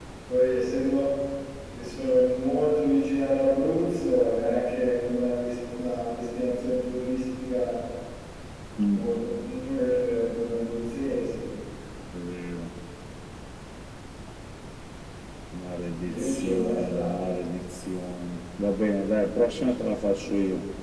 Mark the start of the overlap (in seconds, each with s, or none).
16.1 s